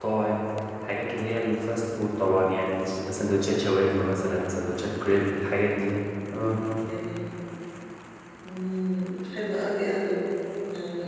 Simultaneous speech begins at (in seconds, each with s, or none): none